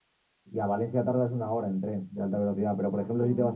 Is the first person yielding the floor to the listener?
No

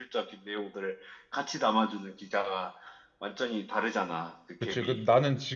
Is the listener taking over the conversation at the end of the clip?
Yes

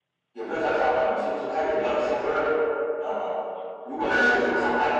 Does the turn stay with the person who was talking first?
Yes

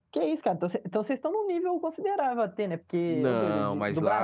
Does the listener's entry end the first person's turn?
Yes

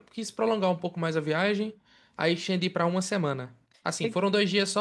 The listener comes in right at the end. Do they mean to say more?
No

